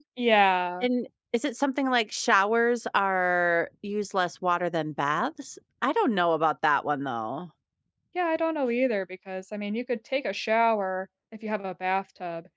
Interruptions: none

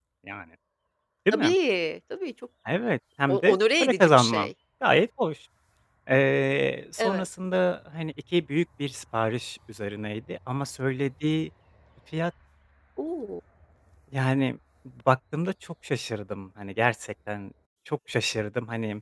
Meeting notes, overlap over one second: present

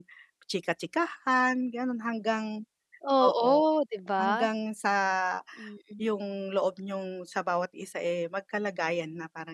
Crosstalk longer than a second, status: none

